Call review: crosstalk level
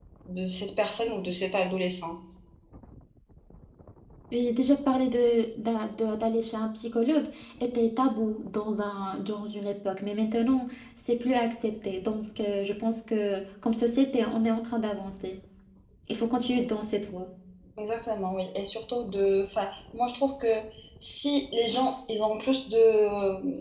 none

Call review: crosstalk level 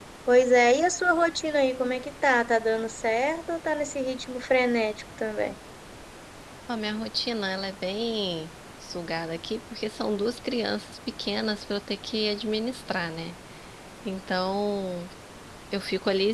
none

